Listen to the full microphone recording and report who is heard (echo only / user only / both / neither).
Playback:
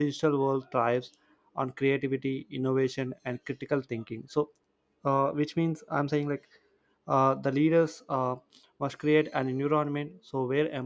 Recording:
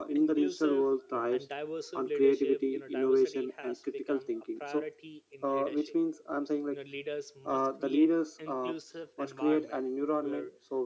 both